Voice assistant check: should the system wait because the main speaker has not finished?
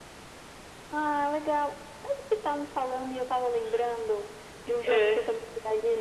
Yes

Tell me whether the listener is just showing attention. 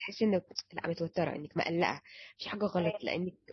Yes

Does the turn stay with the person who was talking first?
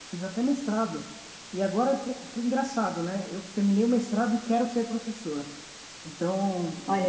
Yes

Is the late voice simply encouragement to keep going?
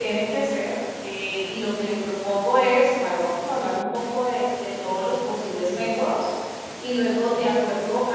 Yes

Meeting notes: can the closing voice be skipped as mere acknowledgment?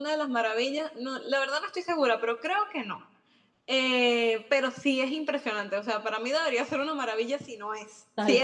No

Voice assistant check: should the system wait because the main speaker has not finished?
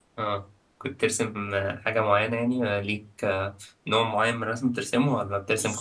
No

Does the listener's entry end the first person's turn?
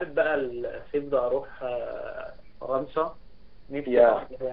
No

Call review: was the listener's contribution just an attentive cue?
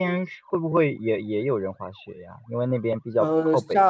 No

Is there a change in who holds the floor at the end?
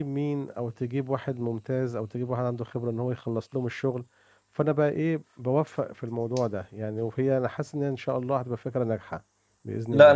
Yes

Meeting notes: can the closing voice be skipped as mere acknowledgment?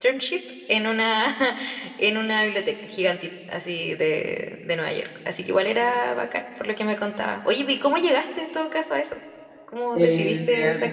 No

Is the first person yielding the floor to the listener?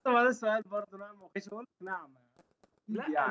Yes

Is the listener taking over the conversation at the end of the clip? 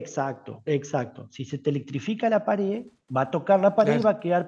No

